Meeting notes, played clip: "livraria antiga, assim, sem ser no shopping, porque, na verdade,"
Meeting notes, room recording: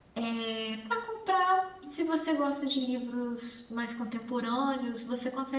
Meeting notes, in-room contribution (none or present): present